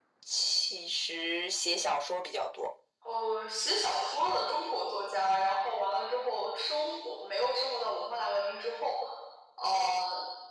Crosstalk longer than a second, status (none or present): none